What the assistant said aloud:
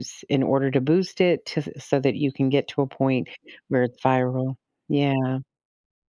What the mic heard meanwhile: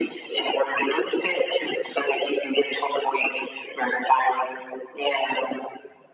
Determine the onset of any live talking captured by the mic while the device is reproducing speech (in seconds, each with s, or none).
none